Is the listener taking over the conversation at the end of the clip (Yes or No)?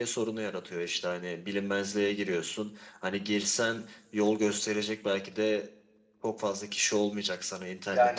No